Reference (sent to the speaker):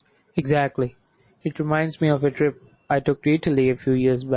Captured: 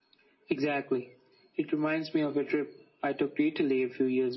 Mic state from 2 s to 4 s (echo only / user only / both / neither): echo only